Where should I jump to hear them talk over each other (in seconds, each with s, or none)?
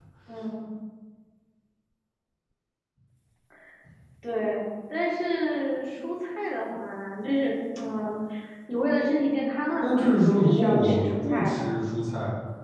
9.8 s